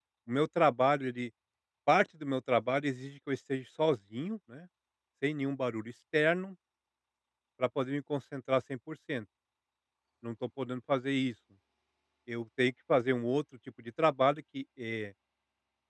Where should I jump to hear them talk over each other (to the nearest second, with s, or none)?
none